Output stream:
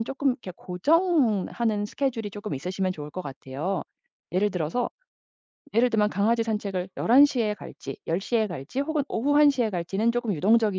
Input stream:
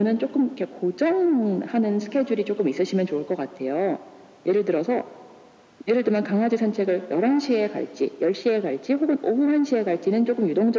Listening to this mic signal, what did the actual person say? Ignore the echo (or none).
none